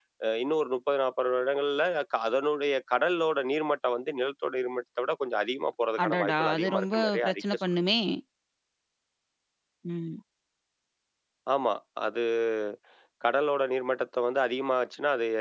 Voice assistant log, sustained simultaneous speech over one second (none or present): present